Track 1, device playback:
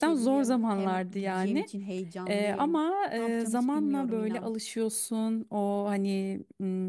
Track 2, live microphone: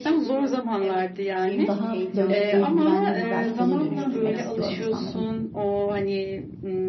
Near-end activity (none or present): present